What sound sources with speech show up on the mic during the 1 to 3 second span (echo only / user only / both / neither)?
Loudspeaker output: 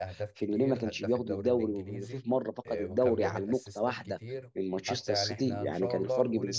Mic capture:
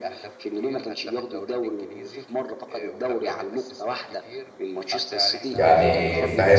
echo only